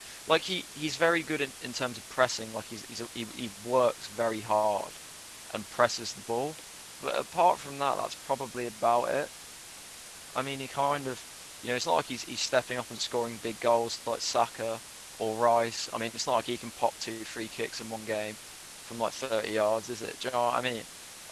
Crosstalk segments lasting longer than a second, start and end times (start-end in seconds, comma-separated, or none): none